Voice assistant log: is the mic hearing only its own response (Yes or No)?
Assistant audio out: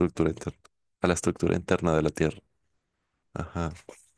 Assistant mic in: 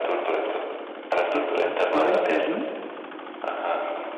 No